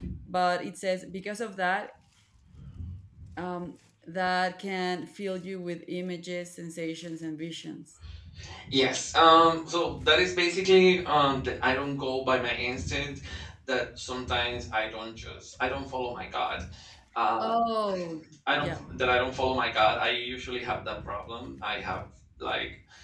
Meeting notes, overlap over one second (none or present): none